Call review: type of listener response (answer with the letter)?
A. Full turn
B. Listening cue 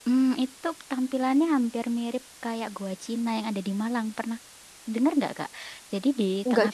B